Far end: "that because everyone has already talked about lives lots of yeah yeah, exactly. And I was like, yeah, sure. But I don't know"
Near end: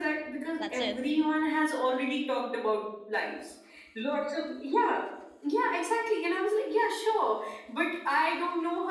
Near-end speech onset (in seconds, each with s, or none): 0.6 s